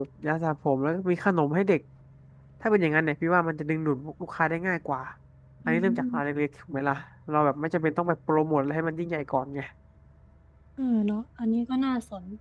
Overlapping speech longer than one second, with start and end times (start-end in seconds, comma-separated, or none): none